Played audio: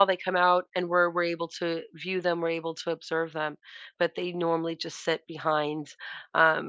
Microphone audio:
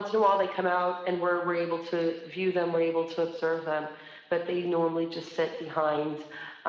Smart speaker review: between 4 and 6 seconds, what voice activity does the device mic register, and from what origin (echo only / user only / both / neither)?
echo only